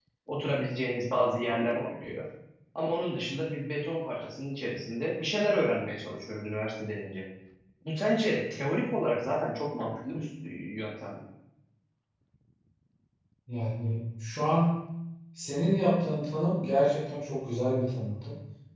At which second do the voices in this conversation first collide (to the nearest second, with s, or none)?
none